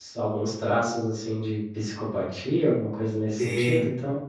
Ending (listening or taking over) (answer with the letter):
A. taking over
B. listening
A